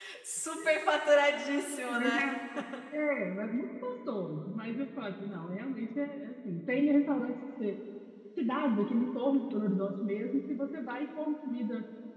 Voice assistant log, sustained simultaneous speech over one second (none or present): none